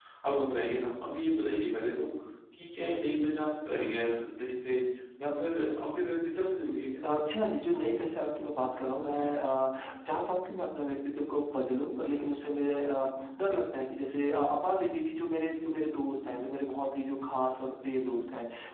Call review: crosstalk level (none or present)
none